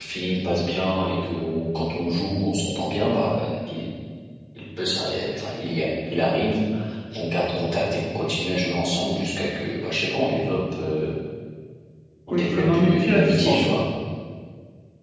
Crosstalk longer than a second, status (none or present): present